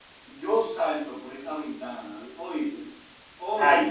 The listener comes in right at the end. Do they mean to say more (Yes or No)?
No